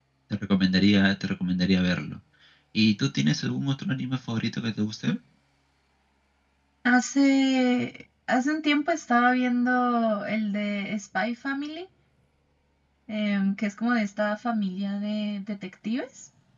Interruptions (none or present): none